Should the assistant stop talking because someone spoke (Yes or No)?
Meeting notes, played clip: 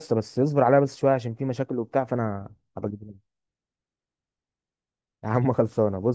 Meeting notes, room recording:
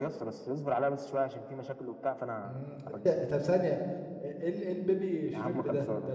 Yes